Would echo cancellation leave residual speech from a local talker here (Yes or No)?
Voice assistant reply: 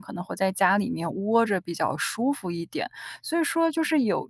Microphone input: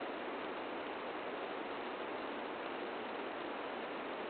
No